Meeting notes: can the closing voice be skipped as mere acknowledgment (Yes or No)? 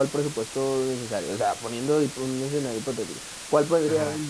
Yes